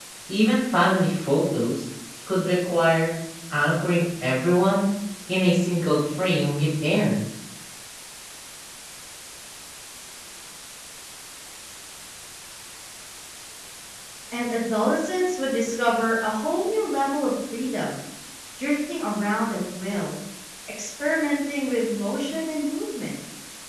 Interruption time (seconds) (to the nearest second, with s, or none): none